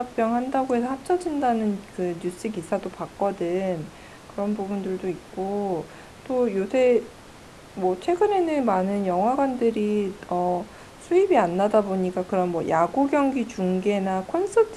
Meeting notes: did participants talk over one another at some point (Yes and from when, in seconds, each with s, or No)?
No